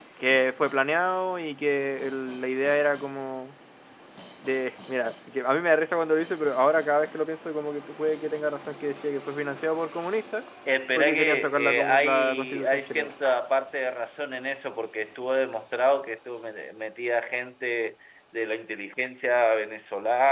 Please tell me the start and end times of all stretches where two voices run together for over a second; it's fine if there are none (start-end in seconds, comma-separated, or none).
11.0-13.1